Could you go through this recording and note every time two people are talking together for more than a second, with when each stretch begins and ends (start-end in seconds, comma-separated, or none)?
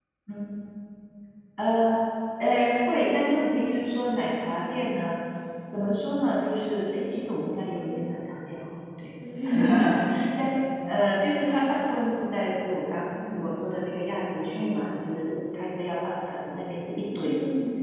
none